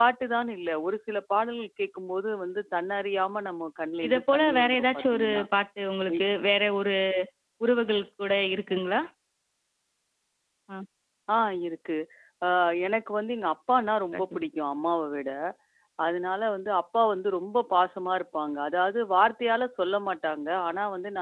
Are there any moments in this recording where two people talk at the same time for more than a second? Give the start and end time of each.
4.1-5.4

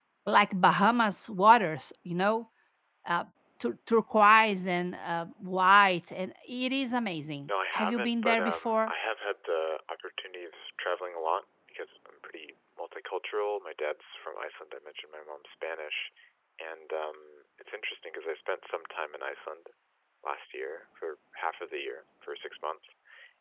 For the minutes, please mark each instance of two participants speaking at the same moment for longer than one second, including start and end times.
7.5-8.9

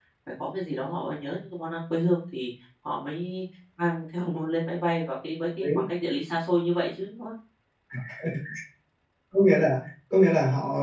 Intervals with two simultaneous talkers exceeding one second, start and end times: none

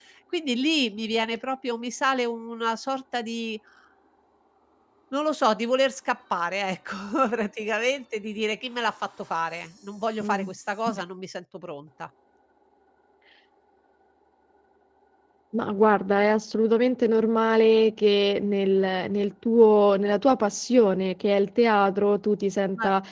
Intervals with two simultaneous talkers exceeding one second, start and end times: none

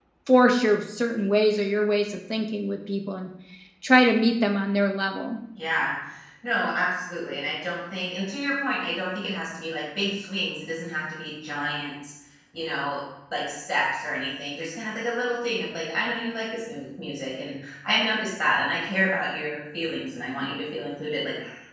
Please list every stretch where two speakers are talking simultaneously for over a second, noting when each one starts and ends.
none

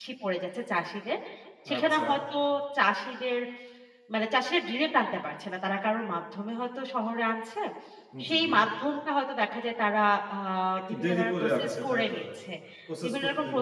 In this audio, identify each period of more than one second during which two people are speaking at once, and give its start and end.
10.9-12.1

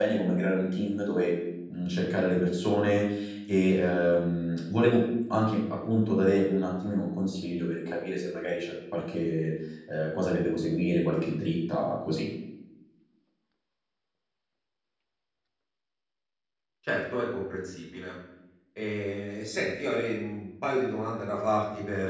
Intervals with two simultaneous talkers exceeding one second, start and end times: none

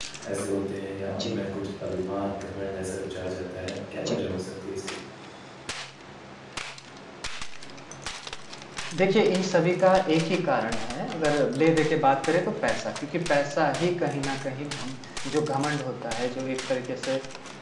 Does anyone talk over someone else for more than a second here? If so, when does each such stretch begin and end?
none

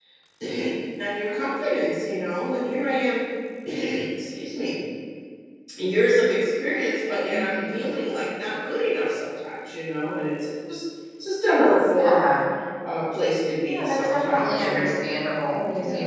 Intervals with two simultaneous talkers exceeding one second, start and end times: 13.7-14.9

